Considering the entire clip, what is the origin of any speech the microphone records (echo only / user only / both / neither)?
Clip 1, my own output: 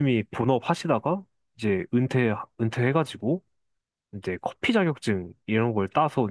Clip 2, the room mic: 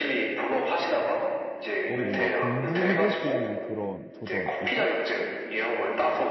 both